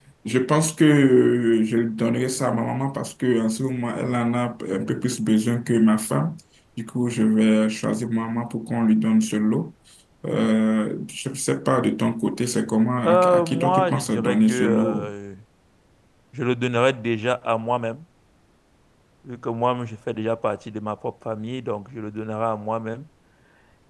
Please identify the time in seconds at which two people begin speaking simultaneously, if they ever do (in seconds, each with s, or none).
13.0 s